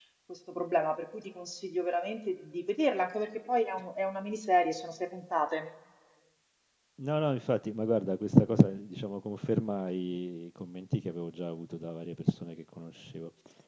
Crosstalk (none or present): none